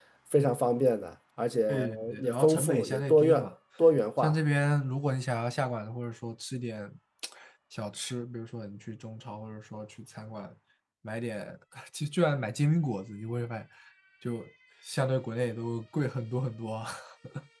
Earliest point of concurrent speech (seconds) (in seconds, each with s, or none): 1.7 s